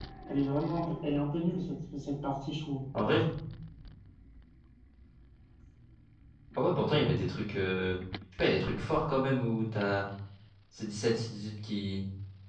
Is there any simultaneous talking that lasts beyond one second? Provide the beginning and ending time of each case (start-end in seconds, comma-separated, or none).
none